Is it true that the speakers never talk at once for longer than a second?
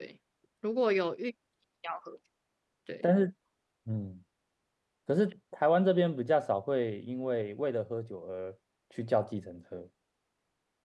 Yes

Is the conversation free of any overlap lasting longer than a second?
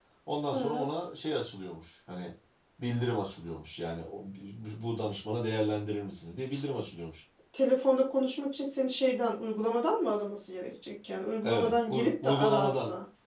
No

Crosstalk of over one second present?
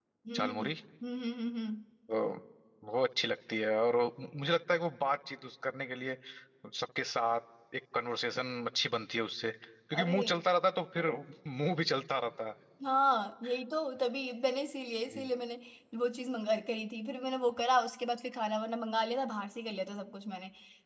No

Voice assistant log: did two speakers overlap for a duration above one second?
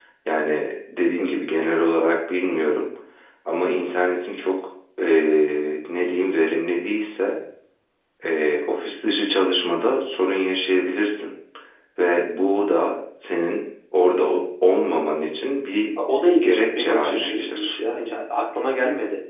Yes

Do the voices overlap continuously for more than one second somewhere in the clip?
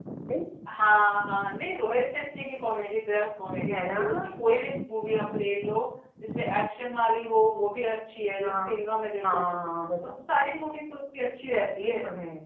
No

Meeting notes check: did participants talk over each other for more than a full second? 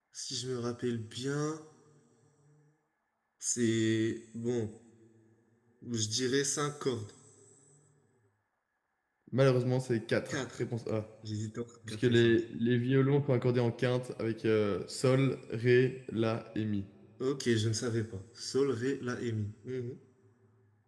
No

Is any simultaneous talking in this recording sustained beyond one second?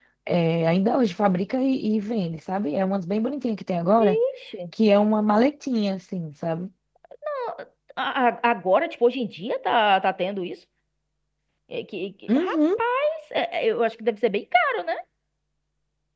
No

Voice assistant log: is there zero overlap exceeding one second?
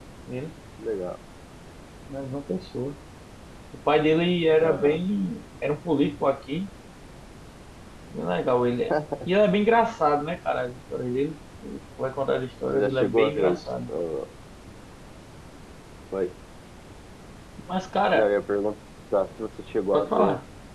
No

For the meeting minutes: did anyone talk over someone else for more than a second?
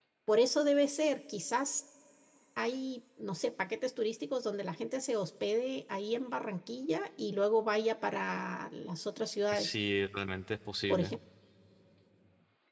No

